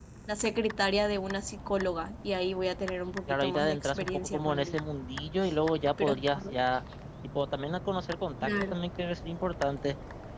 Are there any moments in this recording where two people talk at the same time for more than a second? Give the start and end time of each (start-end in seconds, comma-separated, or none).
3.3-4.8